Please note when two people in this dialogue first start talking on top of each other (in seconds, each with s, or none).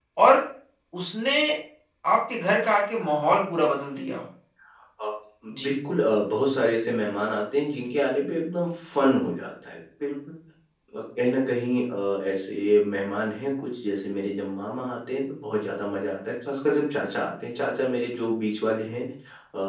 none